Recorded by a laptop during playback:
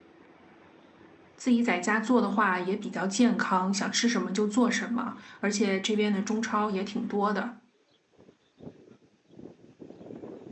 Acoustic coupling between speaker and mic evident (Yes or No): No